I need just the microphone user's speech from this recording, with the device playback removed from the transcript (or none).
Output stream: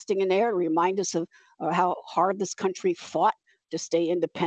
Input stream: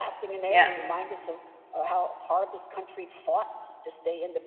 yes.